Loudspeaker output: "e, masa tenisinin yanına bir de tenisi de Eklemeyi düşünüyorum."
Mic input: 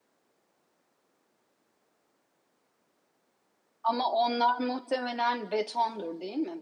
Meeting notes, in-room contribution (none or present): present